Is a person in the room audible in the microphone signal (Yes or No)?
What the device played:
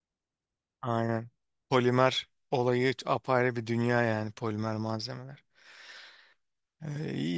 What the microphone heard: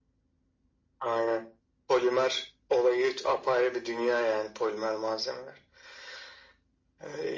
No